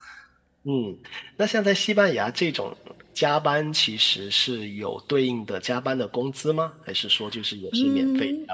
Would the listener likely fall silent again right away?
No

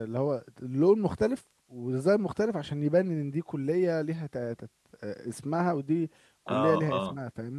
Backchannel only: No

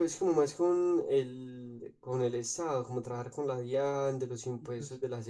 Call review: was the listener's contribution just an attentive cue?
Yes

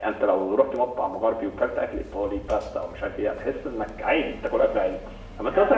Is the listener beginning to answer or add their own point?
No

